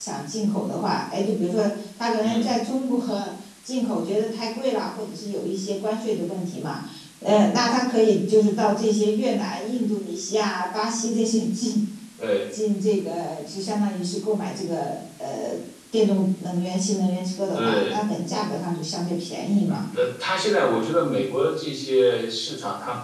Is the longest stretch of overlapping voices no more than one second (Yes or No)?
Yes